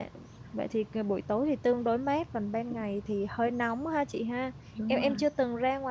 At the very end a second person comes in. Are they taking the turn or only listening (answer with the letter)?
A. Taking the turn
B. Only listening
B